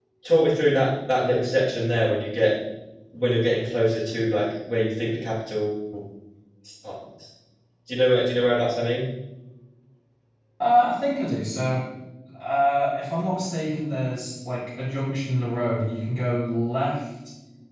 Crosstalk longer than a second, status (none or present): none